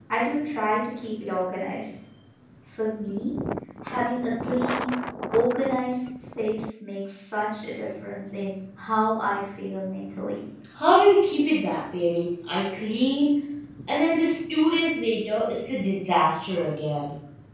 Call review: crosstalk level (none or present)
none